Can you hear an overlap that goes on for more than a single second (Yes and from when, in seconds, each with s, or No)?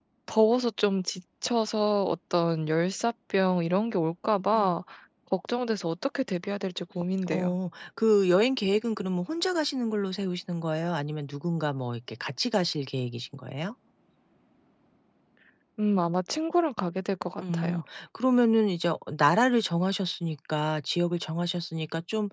No